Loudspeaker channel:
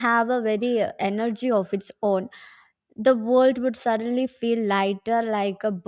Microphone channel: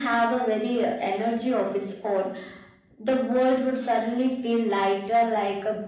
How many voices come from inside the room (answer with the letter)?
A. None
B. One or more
A